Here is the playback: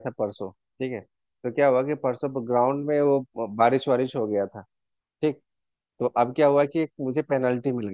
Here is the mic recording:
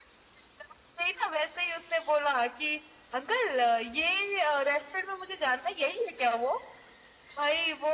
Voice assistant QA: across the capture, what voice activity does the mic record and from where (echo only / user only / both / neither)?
user only